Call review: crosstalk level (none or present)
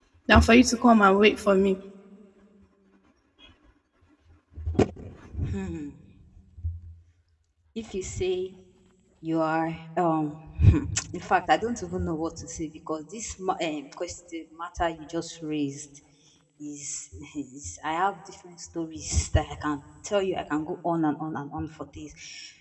none